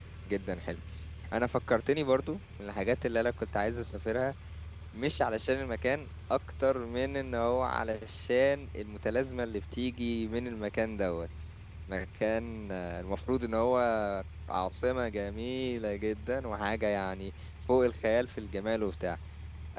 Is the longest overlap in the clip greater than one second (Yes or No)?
No